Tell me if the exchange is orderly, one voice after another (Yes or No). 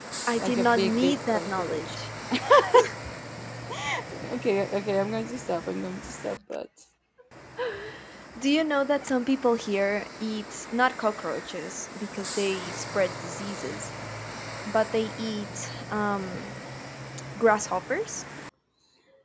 No